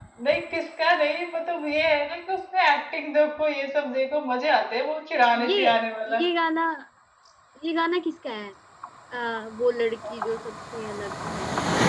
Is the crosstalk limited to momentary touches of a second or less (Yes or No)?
Yes